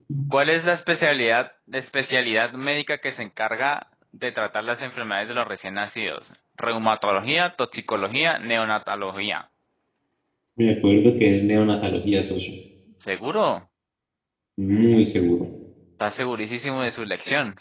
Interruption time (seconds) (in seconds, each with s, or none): none